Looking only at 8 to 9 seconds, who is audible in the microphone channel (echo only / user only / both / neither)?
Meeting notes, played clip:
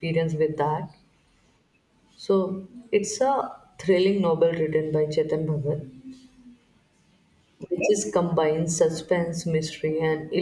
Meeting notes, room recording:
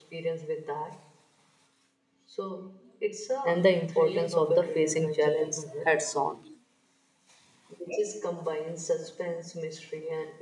echo only